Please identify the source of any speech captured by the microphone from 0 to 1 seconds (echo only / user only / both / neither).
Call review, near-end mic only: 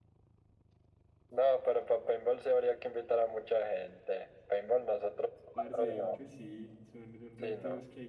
neither